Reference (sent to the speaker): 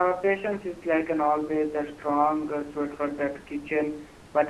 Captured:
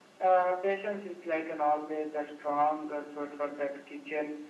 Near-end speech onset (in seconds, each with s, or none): none